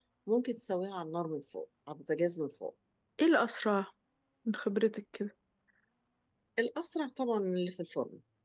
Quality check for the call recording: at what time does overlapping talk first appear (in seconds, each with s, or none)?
none